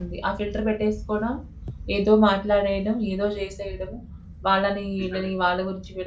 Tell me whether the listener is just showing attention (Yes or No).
Yes